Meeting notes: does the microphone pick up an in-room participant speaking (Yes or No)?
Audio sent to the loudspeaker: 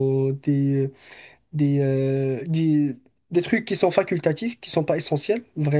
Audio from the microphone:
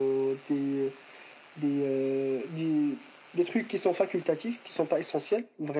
No